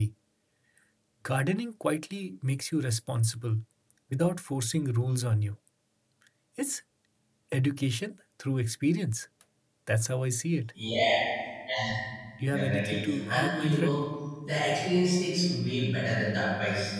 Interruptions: present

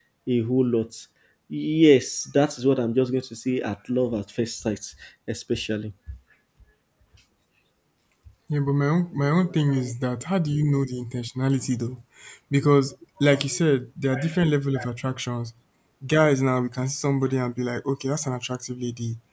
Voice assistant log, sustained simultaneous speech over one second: none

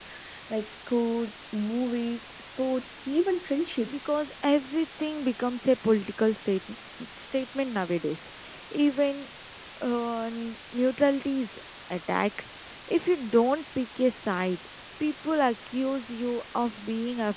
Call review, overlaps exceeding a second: none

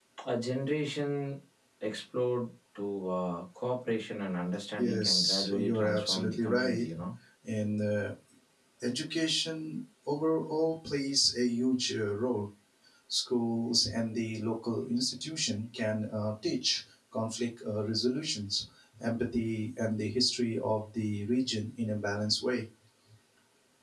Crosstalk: present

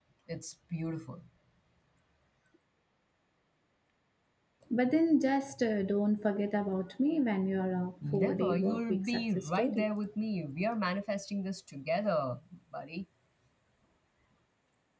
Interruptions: present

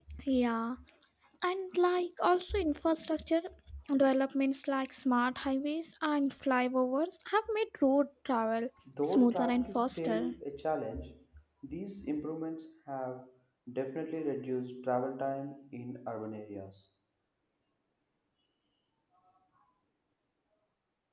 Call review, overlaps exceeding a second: present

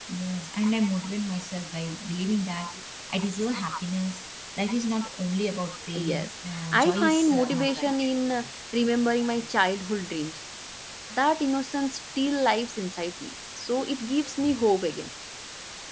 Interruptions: present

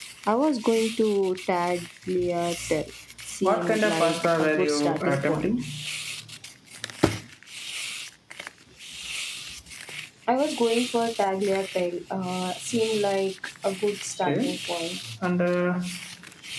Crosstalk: present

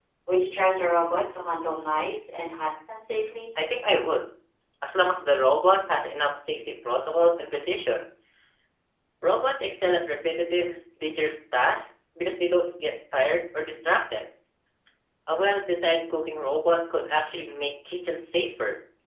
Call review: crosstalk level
none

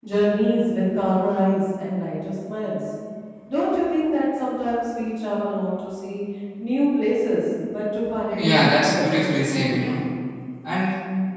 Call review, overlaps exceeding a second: present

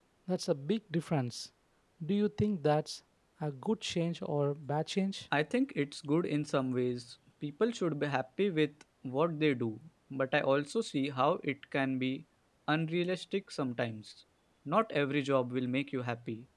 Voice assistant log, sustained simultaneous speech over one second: none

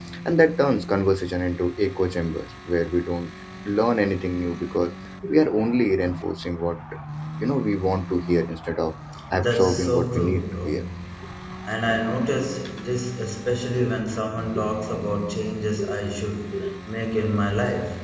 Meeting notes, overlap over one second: present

